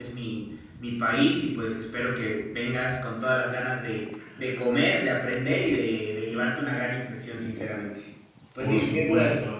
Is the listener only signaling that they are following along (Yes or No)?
No